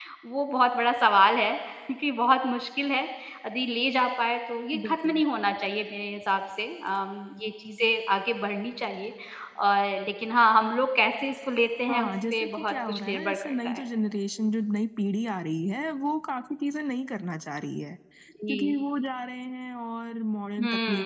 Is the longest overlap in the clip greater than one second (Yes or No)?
Yes